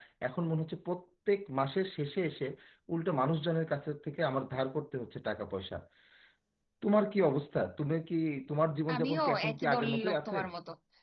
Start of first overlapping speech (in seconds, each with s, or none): 8.9 s